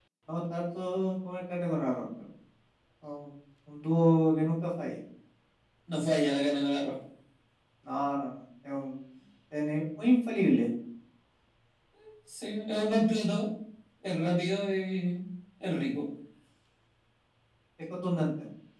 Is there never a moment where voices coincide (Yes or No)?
Yes